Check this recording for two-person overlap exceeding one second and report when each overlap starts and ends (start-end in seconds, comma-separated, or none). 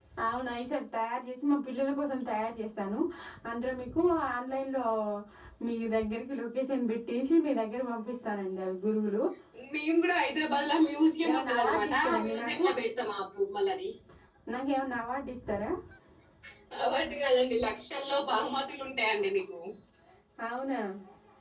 11.3-12.7